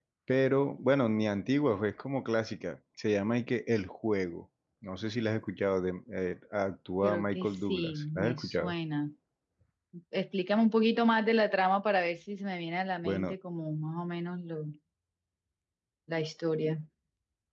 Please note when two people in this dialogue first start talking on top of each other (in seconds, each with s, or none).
7.0 s